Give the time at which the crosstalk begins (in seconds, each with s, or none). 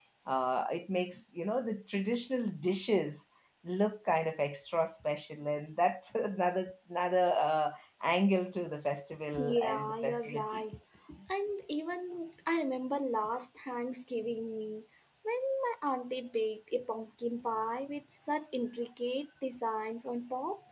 9.3 s